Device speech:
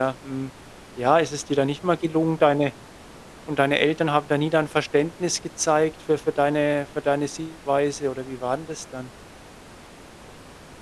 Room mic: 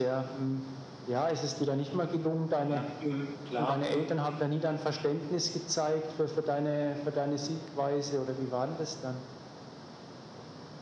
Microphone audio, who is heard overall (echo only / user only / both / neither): both